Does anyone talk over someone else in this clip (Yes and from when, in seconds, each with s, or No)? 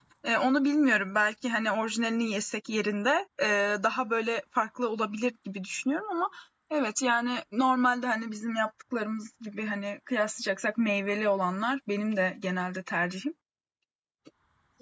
No